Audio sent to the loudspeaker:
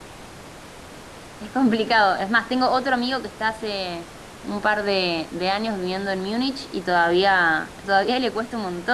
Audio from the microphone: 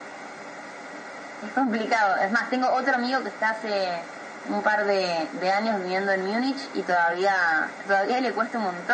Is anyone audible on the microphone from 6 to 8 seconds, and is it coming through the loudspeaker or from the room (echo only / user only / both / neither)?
echo only